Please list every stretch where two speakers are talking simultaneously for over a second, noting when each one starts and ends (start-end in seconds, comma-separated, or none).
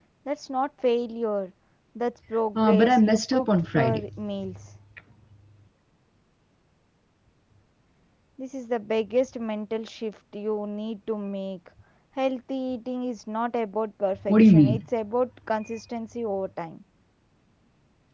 2.6-4.1